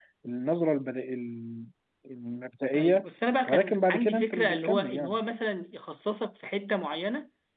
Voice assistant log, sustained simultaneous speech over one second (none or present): present